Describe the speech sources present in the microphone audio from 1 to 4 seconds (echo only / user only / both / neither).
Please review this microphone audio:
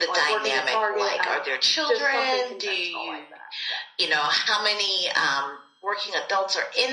echo only